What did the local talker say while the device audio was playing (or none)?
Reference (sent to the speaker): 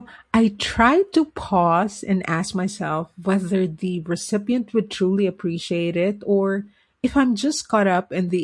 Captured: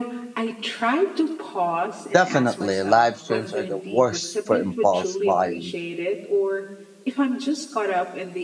Definitely, live streams are the worst for impulse buying.